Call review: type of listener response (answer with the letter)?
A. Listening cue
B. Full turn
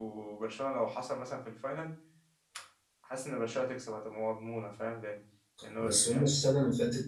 B